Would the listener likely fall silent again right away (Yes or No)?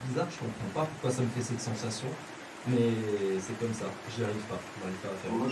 No